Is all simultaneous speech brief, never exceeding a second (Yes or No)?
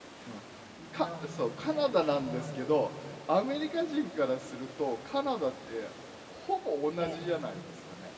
No